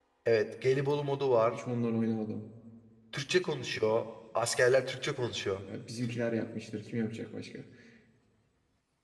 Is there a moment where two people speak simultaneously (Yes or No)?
No